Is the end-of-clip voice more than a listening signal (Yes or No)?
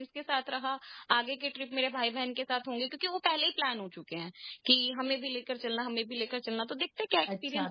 Yes